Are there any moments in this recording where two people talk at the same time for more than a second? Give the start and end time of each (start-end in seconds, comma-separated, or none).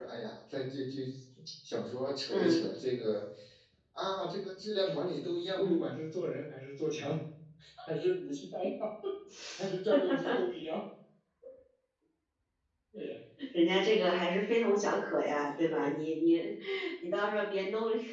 14.6-15.9